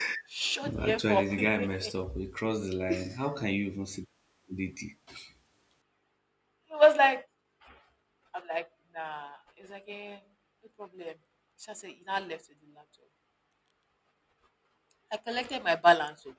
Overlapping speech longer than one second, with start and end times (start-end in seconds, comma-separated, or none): 0.6-1.9